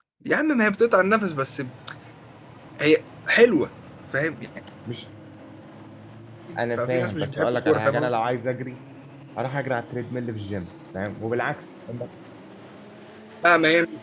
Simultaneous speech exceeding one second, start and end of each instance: 6.8-8.2

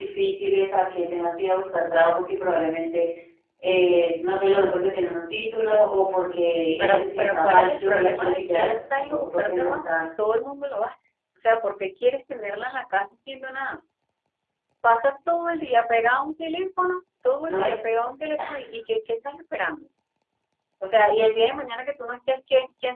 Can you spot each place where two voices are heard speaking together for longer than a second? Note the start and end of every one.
6.8-10.0

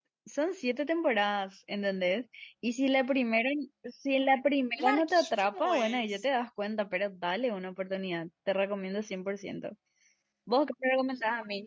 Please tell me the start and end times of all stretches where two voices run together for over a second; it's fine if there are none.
4.8-6.2

